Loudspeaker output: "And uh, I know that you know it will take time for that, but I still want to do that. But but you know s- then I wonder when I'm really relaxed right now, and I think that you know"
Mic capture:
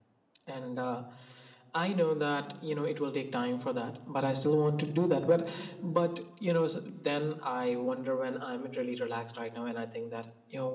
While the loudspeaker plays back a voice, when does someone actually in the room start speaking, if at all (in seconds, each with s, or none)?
none